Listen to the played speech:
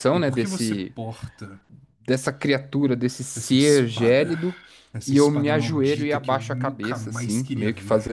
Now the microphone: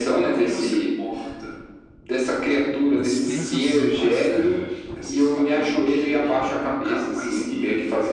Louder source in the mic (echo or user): echo